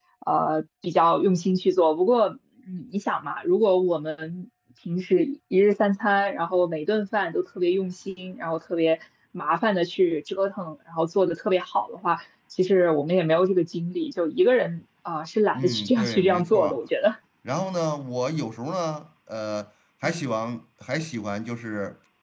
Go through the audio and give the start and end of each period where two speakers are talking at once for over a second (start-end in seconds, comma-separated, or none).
15.6-16.8